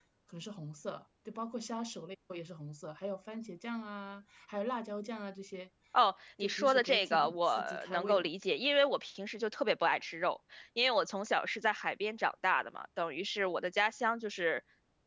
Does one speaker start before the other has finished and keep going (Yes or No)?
Yes